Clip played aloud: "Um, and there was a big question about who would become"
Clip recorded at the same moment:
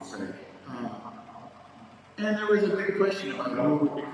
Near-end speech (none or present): none